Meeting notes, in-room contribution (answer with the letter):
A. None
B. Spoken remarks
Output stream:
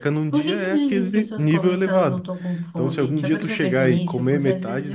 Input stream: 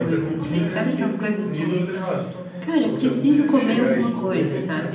B